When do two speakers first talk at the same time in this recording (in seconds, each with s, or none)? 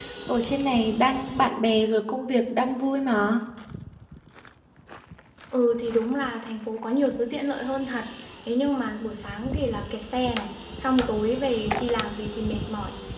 none